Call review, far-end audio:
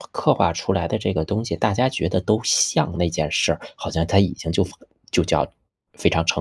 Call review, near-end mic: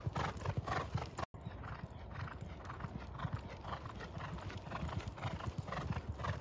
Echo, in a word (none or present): none